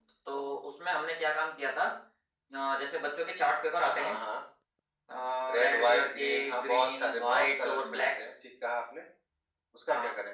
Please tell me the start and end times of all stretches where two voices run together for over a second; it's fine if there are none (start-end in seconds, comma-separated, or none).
5.6-8.2